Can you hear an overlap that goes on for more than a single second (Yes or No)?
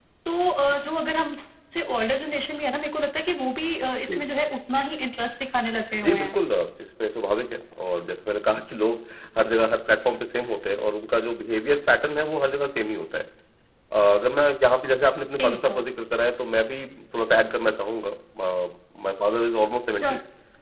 No